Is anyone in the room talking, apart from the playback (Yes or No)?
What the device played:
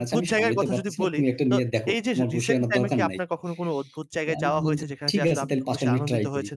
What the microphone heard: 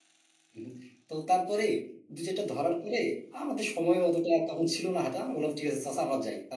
Yes